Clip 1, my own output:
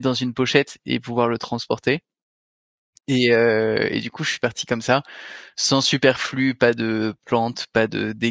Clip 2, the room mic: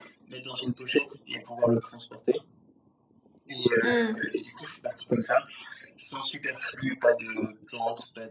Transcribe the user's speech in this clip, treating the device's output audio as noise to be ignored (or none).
Mmh.